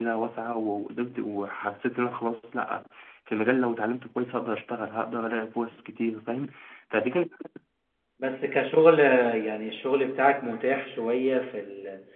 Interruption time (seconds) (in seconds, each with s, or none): none